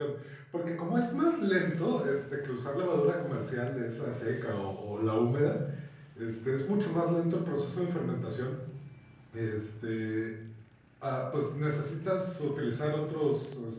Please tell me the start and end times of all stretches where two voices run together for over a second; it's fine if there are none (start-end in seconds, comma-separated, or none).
none